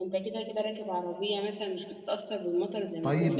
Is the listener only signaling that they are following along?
No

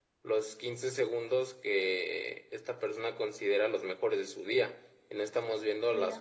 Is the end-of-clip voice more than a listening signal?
No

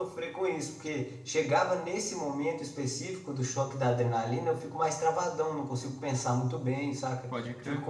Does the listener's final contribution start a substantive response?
No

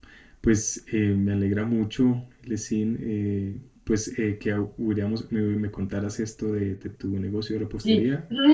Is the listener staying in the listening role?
No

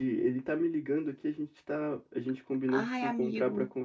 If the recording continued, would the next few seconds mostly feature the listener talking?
No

